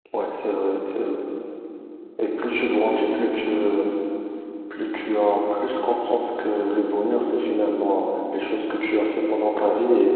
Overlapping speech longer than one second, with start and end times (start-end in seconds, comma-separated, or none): none